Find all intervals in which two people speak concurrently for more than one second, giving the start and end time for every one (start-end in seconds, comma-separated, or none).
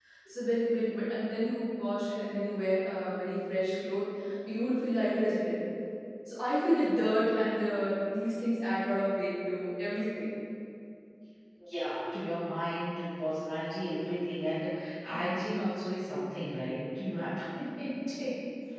none